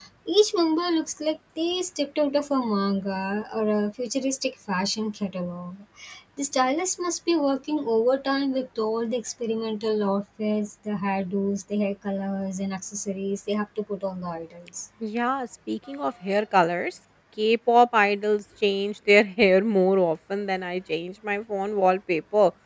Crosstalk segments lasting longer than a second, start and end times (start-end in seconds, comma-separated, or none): none